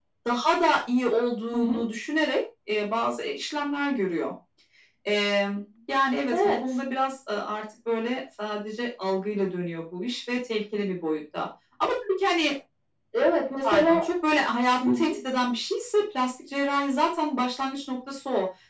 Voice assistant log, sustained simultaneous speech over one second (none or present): none